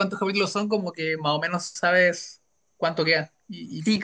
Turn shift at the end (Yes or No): Yes